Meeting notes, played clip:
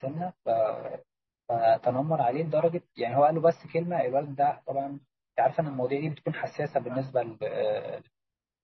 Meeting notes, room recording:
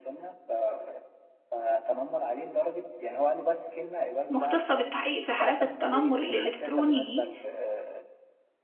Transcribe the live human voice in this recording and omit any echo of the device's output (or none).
مختصه بالتحقيق في حالات التنمر الالكتروني دي